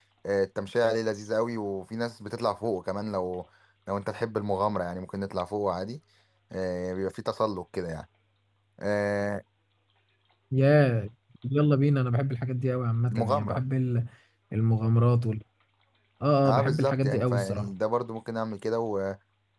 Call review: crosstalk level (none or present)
present